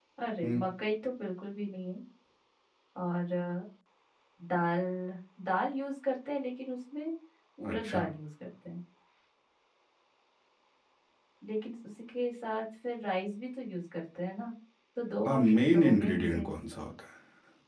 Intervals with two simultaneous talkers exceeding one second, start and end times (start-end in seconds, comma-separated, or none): 15.3-16.5